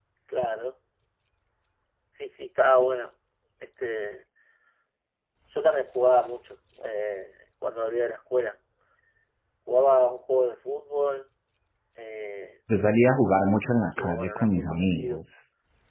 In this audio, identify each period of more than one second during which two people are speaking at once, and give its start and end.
14.0-15.2

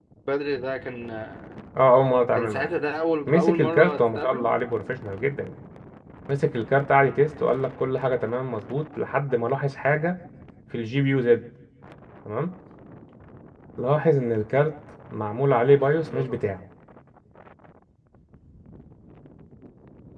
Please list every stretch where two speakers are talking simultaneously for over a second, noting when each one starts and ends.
3.3-4.5

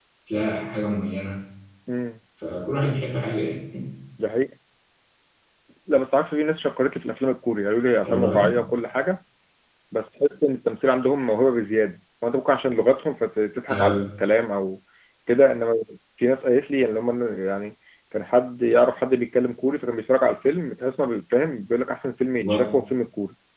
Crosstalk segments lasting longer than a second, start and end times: none

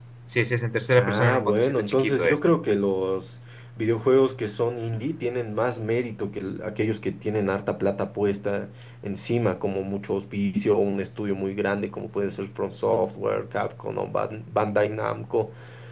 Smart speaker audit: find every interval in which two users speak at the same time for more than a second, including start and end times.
0.9-2.4

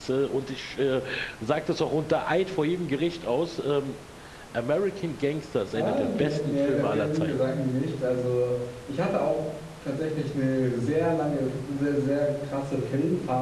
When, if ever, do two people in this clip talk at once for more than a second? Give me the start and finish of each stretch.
5.7-7.3

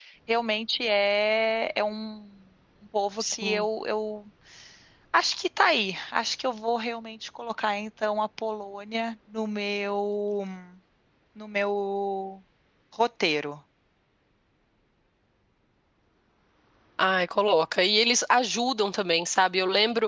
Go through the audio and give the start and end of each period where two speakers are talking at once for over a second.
none

